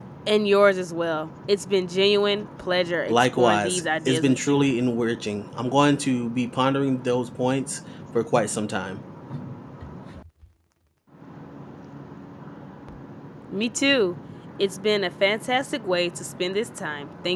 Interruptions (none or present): present